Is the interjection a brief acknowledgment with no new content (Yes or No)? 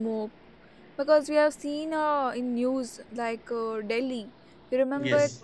Yes